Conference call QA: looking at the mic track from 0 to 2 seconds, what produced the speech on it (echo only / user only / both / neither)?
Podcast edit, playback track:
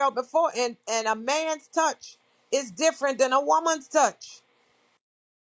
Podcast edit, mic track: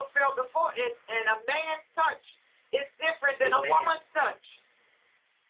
echo only